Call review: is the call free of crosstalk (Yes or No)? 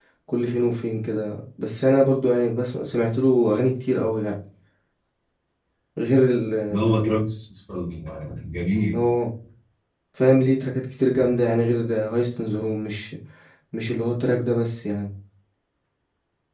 Yes